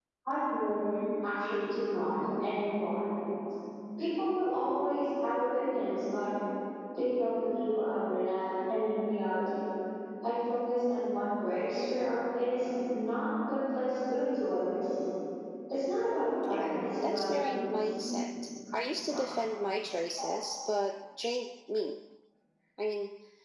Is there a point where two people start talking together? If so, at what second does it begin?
16 s

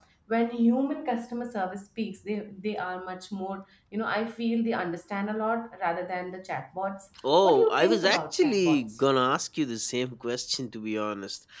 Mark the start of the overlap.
7 s

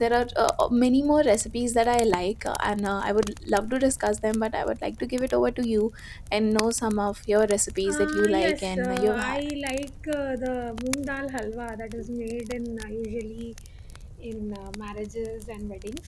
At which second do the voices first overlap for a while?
8 s

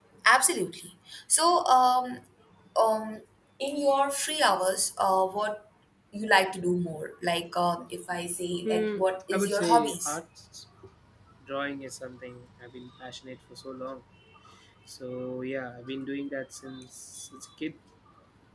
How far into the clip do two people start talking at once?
9 s

